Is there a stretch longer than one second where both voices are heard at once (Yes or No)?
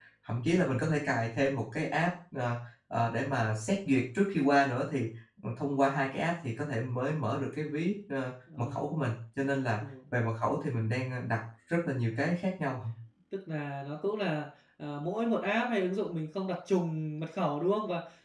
No